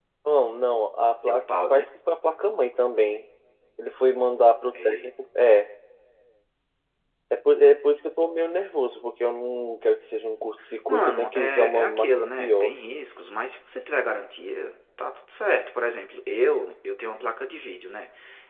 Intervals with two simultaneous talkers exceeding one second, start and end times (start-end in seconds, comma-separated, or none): 10.9-12.7